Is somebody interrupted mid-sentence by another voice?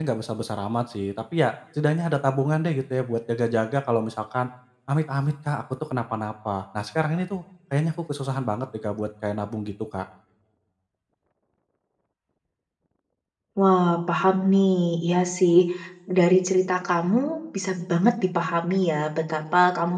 No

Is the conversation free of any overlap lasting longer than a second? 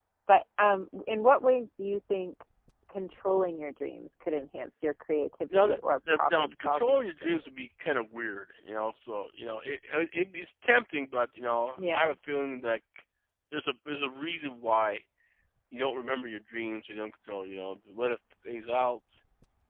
No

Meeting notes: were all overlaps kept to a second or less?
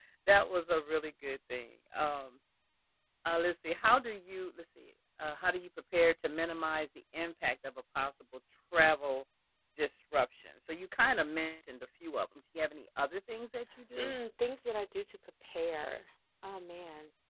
Yes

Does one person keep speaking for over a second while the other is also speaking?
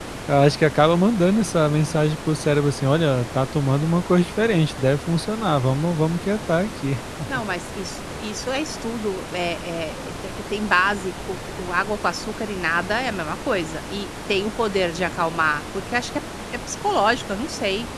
No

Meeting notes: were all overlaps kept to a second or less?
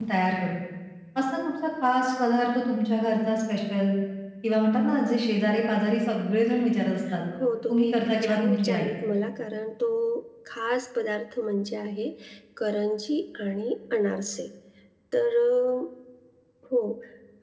No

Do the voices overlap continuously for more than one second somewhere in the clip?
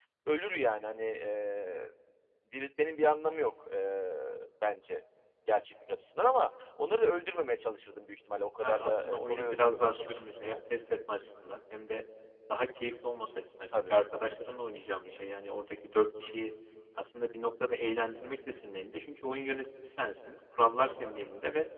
Yes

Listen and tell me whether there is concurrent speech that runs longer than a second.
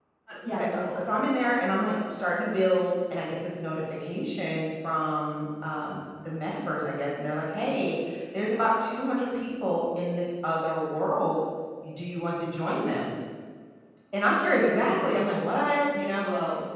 No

